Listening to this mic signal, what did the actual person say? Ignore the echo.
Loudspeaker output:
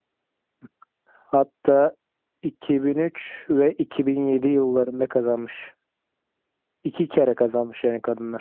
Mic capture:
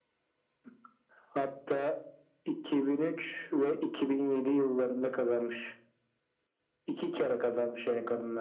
none

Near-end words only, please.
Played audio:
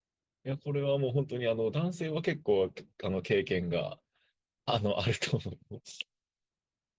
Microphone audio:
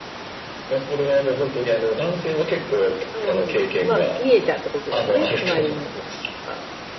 うん。まあ見えちゃうってことですよね。隣の人とか。

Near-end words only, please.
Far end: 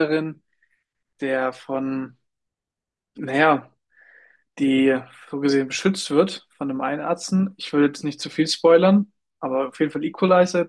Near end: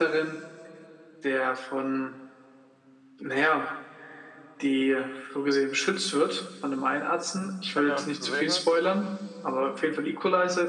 du es gesehen hast.

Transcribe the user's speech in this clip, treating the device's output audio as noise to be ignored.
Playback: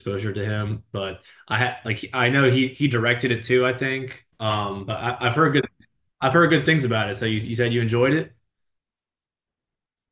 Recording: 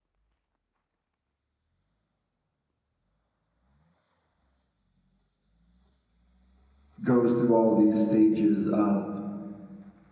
goes through all these stages of

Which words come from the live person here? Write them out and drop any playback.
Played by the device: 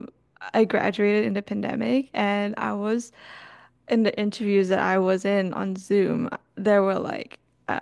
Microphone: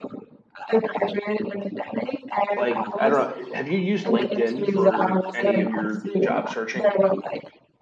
Like, I don't know, have you used LinkedIn for any of your job searching?

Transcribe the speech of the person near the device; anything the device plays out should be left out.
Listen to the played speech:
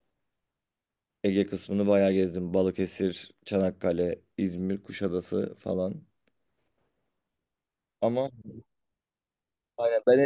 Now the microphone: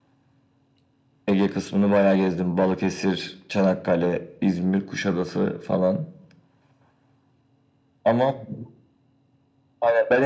none

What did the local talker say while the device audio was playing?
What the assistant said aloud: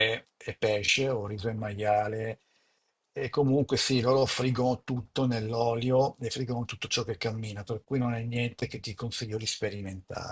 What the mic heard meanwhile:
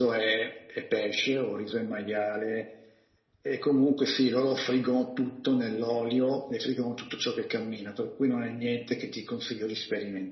none

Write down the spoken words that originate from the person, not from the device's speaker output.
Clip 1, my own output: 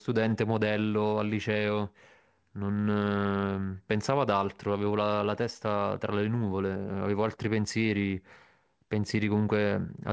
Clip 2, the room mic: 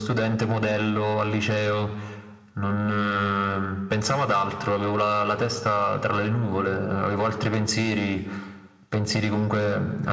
none

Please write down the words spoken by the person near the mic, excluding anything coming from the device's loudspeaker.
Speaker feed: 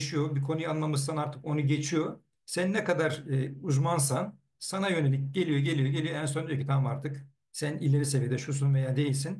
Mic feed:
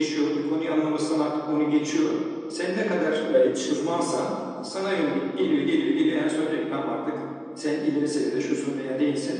Evet.

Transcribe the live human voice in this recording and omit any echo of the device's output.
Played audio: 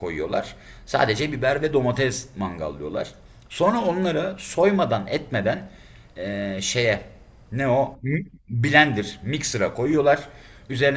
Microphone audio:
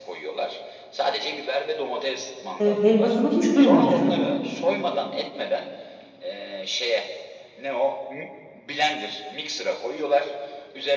e, helvasını hiç duymamıştım.

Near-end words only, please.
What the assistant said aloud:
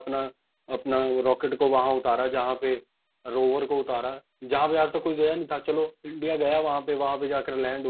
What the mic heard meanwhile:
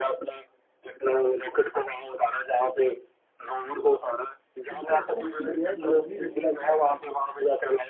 तुमको लगता नहीं कि गैर जरूरी लगता है

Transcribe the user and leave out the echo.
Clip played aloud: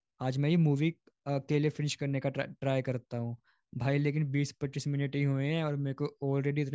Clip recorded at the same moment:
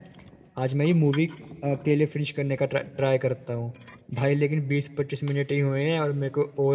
none

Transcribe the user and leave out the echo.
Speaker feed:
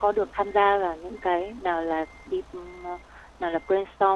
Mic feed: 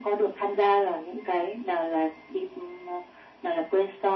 none

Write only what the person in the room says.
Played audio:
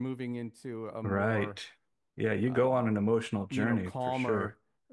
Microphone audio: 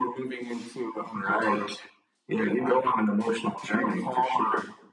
none

